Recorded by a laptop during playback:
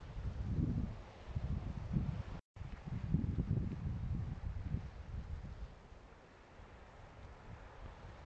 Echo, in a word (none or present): none